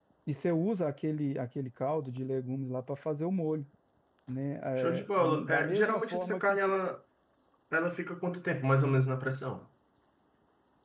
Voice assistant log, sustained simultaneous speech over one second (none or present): present